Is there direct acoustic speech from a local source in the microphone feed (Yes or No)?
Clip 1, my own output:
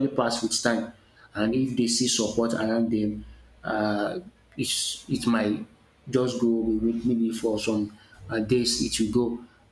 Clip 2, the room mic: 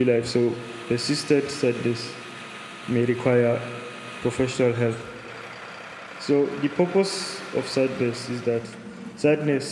Yes